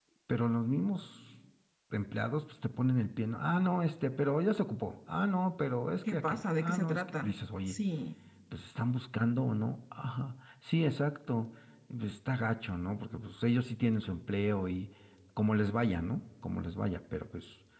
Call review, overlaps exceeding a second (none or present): present